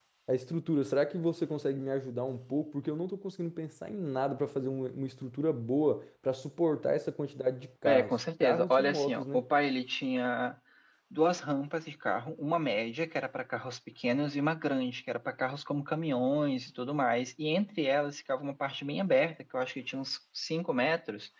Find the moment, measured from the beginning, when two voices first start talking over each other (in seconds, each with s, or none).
7.8 s